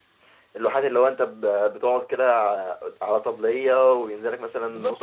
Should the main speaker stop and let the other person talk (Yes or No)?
Yes